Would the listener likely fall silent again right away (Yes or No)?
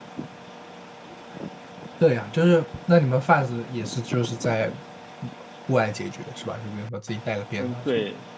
No